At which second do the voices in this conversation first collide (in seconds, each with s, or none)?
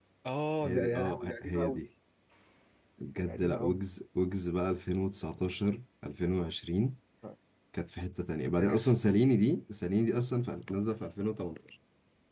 0.6 s